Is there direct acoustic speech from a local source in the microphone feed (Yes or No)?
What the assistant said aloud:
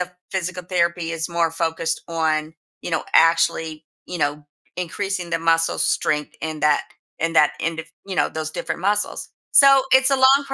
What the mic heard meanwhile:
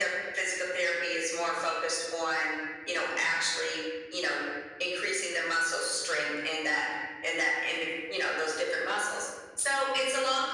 No